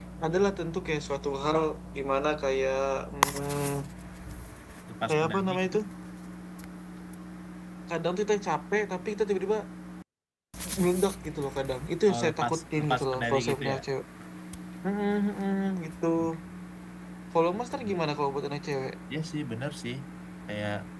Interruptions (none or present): present